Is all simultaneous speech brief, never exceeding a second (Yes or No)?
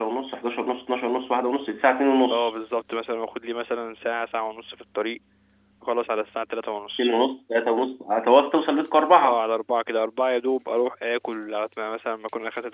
Yes